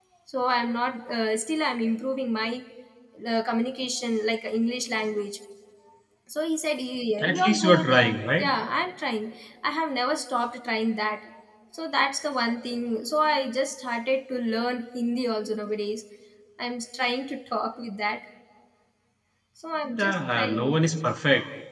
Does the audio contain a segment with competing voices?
Yes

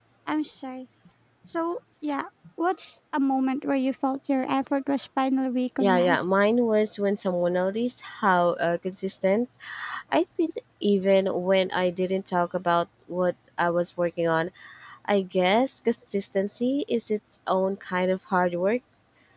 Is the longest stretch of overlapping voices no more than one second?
Yes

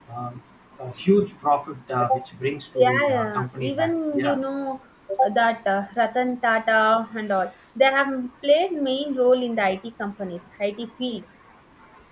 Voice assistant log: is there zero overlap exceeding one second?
No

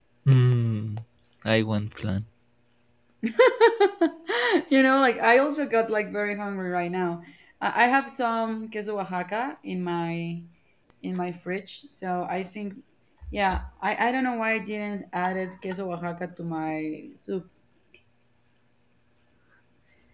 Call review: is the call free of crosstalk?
Yes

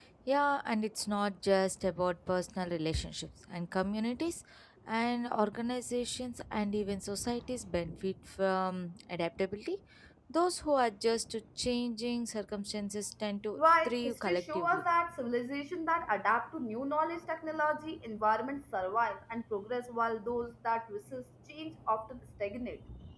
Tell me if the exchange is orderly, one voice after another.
No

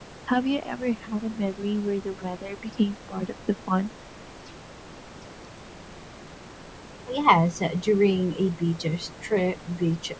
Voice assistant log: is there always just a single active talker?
Yes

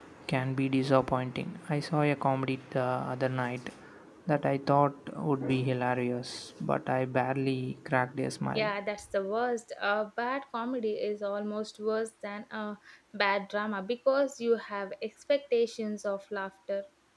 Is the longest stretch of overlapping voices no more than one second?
Yes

